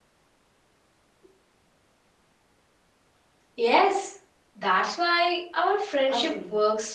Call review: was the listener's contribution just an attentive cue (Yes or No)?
No